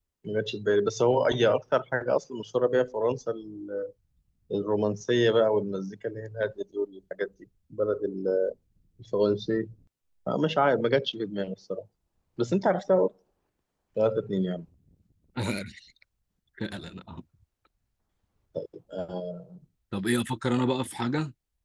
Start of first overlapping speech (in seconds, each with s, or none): none